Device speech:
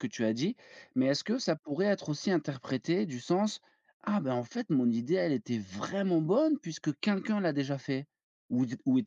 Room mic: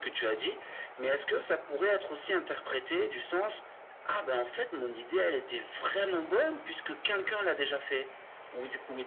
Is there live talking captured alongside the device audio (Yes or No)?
No